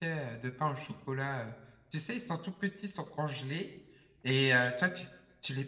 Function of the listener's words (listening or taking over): listening